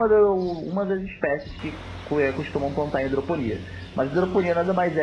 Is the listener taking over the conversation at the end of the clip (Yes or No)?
No